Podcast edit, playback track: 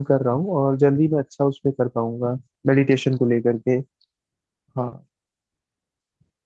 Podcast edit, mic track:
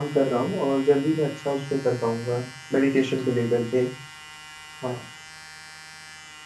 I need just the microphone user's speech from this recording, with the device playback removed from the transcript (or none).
none